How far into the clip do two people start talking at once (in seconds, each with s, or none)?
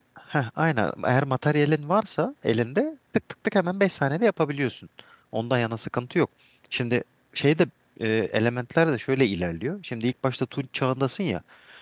none